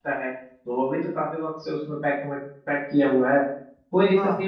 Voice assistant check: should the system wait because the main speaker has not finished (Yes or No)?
Yes